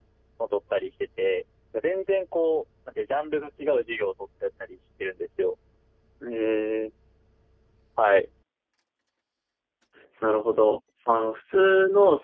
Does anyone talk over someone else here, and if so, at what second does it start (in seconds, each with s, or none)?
none